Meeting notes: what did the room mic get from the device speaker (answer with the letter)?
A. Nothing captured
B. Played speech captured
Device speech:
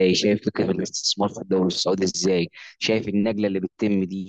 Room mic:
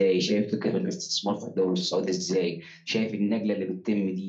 B